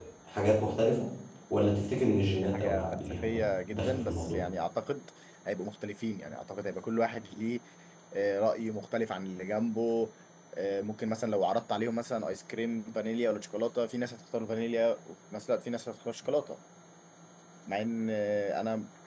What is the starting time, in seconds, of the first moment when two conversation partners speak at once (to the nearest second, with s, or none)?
2 s